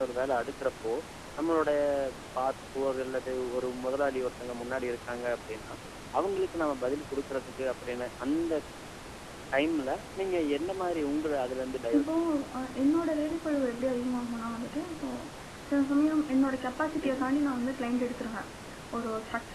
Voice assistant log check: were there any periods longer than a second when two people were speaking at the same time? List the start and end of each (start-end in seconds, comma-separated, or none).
none